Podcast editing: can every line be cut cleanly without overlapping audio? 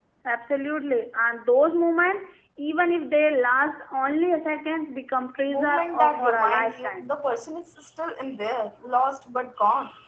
No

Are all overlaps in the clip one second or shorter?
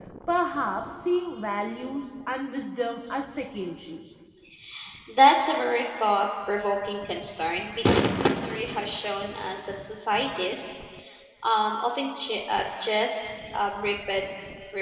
Yes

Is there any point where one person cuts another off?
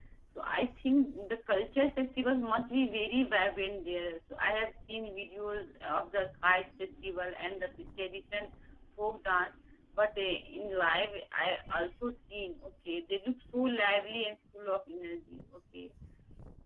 No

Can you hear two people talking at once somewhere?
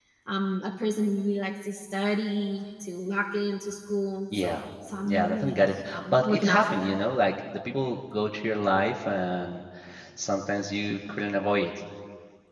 Yes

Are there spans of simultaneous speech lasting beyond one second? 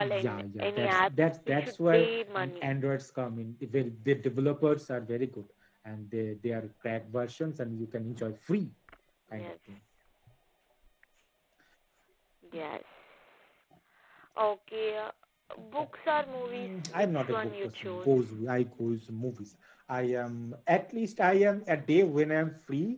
Yes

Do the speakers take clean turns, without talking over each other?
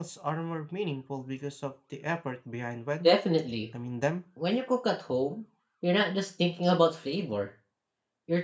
Yes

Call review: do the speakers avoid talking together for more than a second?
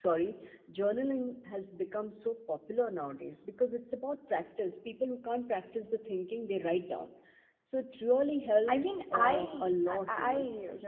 No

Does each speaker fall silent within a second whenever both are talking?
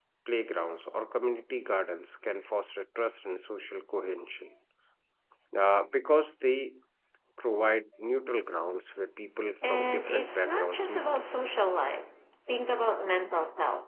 No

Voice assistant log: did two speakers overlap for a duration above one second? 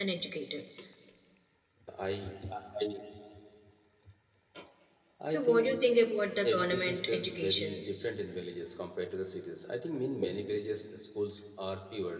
Yes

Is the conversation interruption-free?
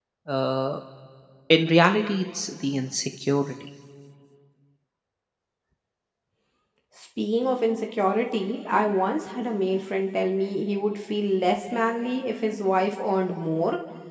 Yes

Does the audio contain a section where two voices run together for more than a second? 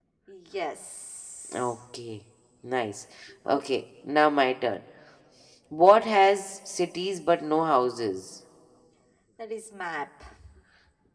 No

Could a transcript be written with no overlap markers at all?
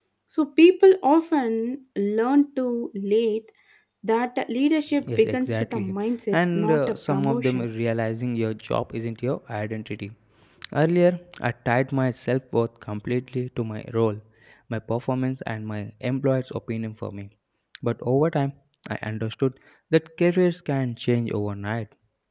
No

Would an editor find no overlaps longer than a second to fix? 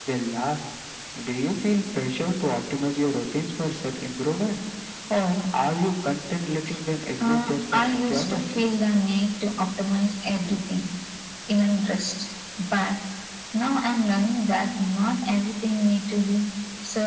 No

